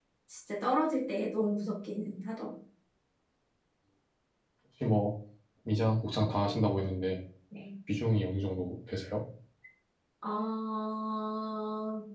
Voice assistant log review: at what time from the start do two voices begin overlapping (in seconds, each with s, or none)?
none